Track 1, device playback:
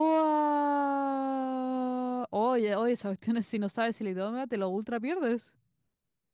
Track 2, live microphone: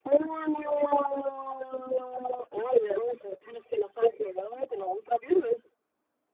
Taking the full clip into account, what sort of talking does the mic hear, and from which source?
echo only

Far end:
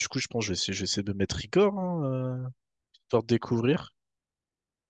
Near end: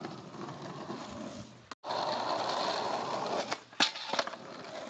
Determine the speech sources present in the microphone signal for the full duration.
neither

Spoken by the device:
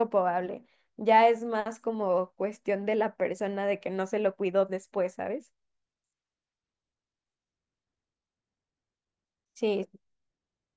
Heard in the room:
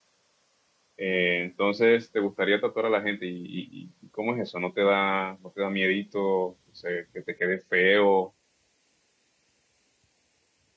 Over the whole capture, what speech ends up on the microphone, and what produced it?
user only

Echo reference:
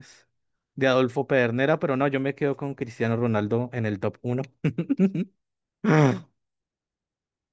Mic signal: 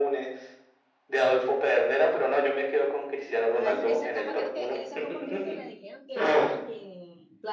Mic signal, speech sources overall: both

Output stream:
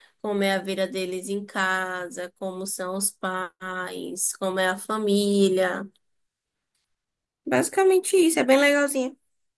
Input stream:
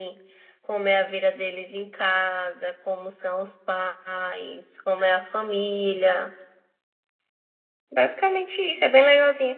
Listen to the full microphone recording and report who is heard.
echo only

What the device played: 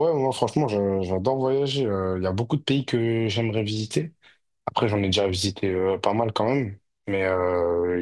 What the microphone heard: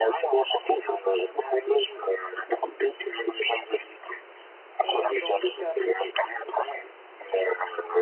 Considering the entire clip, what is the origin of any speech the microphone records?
both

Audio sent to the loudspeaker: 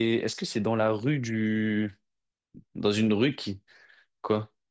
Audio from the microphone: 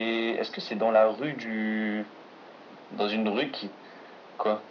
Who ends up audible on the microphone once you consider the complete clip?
echo only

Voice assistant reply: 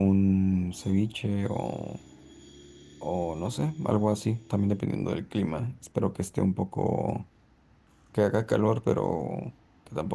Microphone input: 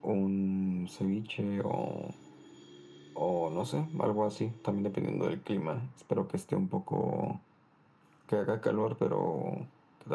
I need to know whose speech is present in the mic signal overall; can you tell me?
echo only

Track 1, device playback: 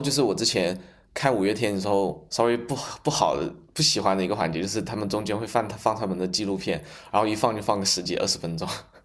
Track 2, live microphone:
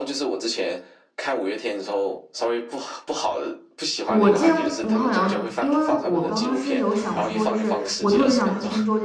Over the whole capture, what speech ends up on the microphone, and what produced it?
both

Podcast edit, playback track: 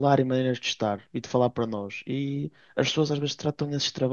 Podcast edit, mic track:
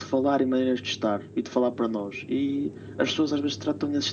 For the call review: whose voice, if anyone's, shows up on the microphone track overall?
echo only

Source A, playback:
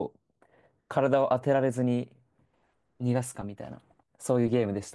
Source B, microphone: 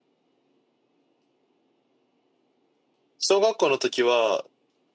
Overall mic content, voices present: user only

